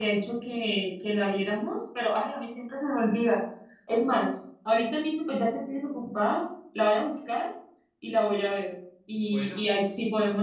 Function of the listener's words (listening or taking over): listening